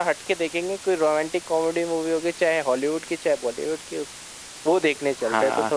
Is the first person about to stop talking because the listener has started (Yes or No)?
Yes